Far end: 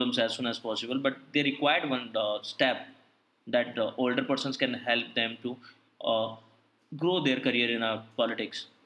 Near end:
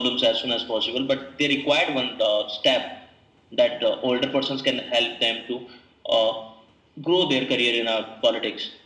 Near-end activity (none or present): none